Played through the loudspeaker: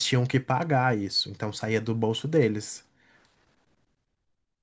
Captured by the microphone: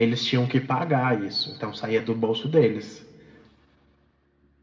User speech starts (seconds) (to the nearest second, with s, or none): none